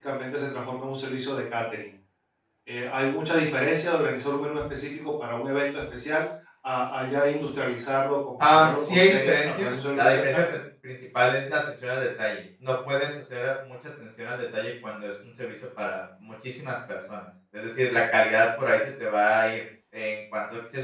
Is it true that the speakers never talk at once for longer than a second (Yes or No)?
No